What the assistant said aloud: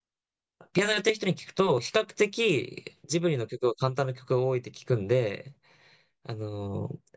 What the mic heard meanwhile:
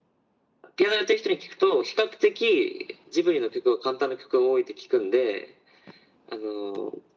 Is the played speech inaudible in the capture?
No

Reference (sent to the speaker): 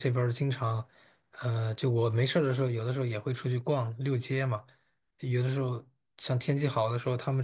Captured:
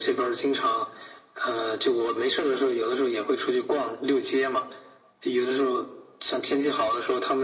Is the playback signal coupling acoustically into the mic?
Yes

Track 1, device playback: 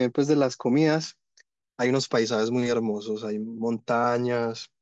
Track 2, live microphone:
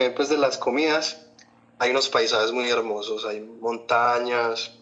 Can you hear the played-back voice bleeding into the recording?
Yes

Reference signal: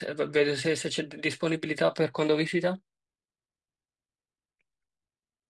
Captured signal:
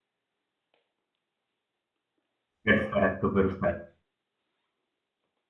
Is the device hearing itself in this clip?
No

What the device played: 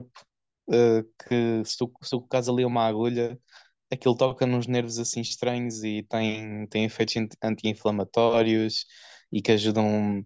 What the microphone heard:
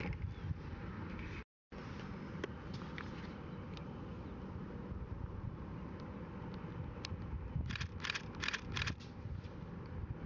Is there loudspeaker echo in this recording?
No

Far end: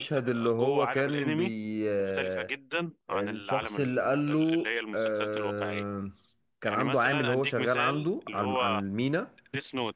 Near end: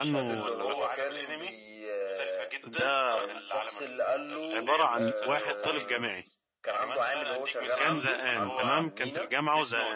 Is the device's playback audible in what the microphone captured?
Yes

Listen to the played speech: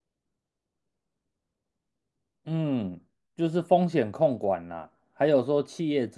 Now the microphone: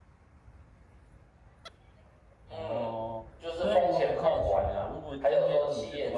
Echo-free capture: No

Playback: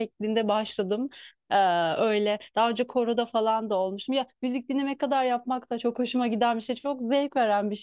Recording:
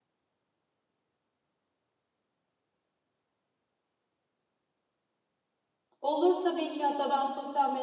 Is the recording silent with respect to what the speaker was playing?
Yes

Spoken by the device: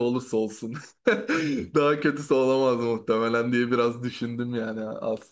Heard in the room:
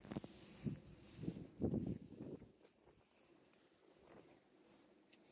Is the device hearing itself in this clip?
No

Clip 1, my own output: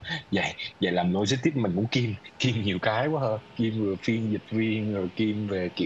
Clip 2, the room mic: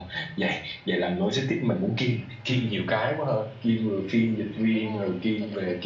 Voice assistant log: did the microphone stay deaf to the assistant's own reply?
No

